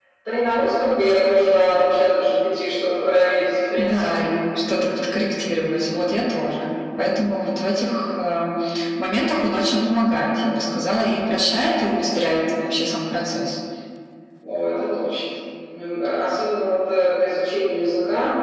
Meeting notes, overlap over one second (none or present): none